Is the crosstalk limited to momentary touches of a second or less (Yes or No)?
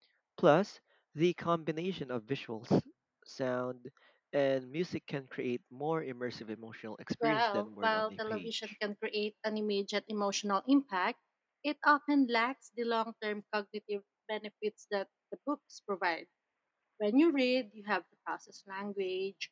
No